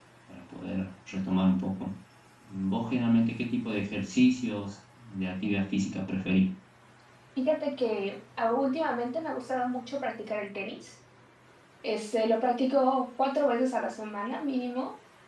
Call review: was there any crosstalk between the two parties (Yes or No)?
No